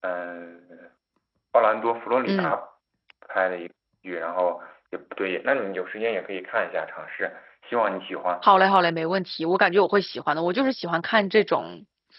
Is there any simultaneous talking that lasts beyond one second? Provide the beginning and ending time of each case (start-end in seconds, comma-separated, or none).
none